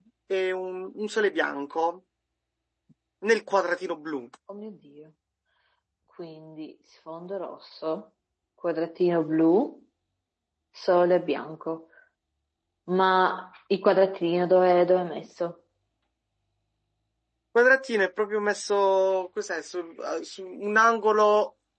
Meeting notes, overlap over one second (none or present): none